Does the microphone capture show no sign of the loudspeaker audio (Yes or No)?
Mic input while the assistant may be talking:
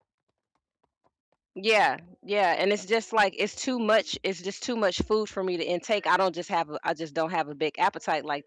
Yes